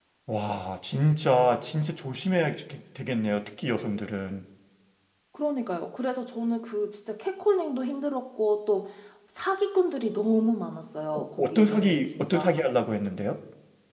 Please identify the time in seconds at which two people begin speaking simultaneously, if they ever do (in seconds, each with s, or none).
11.1 s